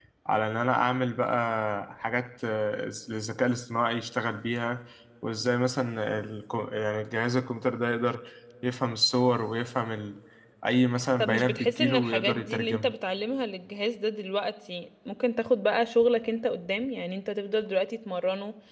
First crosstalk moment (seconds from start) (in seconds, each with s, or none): 11.2 s